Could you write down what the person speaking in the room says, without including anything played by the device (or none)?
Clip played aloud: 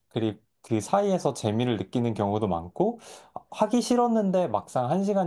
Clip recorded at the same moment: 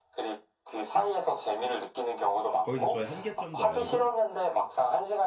거기서 저의 한계점도 알고